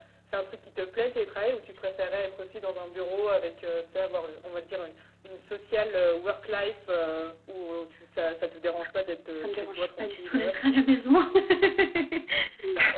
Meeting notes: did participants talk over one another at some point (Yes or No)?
Yes